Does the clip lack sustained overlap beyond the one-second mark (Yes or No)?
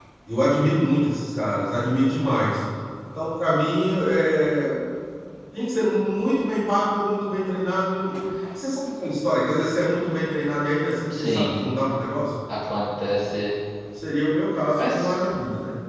Yes